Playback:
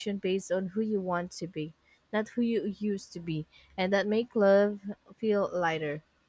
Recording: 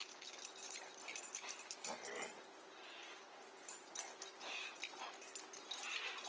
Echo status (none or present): none